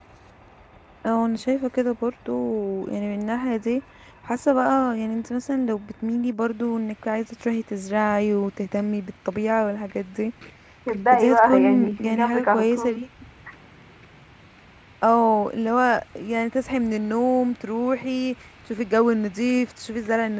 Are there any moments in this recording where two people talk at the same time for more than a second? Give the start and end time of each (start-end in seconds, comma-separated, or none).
11.1-13.0